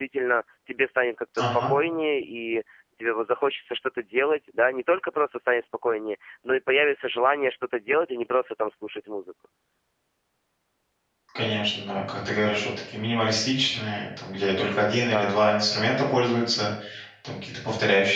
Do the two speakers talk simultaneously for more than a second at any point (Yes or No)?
No